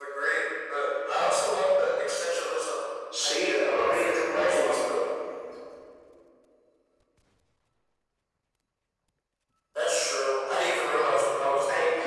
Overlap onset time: 3 s

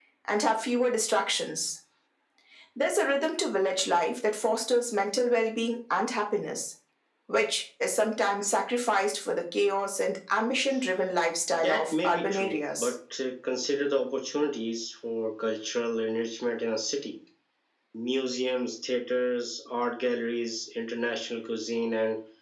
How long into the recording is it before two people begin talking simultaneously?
12 s

